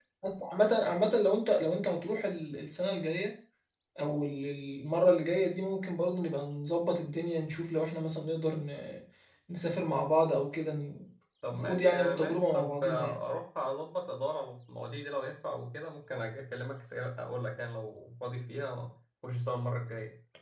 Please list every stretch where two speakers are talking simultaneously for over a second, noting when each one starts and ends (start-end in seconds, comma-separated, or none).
11.5-13.2